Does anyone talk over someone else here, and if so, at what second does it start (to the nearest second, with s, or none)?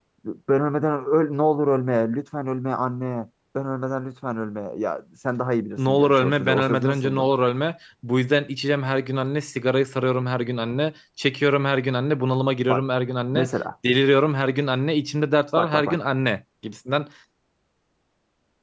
6 s